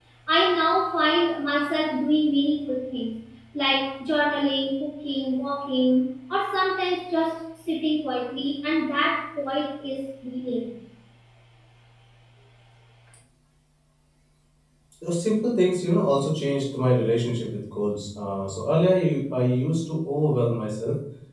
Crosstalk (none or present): none